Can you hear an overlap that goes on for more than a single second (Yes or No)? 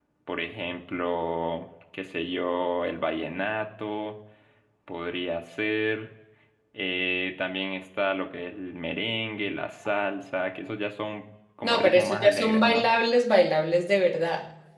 Yes